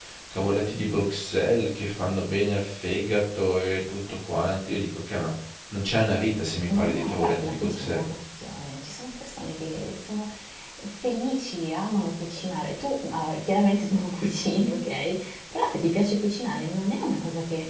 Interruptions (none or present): present